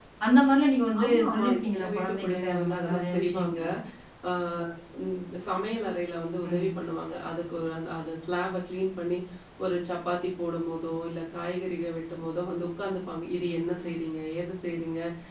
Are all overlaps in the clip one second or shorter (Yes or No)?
No